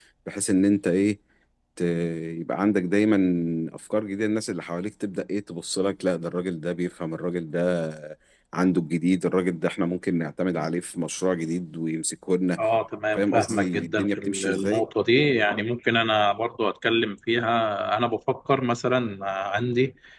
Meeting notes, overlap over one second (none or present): present